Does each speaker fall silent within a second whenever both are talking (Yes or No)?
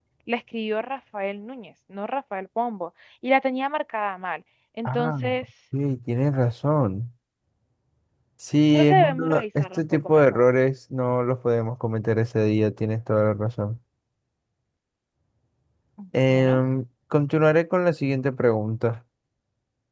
No